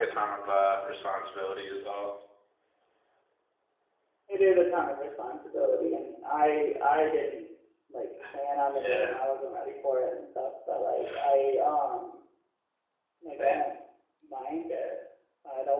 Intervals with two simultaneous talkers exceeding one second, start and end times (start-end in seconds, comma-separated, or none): none